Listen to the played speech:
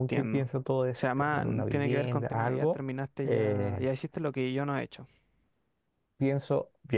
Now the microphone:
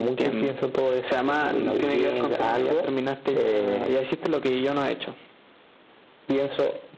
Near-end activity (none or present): none